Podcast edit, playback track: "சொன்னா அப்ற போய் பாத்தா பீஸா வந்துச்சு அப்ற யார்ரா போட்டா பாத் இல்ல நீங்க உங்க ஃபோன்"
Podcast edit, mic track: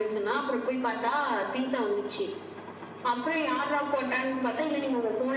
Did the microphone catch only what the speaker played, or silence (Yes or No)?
Yes